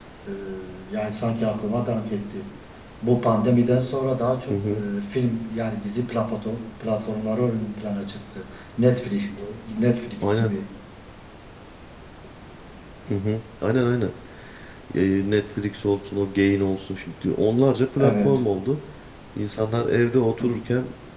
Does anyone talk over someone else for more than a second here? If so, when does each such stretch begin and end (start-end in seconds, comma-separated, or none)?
none